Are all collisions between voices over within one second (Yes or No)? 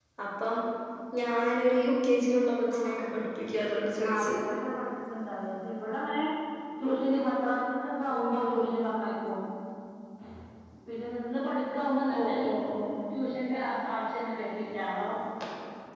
Yes